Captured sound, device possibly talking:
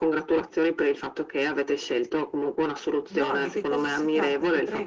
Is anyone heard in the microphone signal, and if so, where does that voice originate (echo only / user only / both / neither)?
both